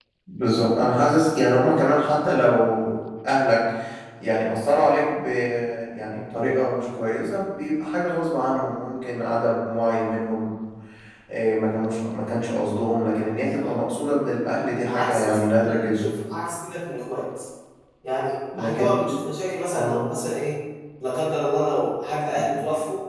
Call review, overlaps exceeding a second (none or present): present